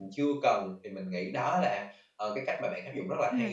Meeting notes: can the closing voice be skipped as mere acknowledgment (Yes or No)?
No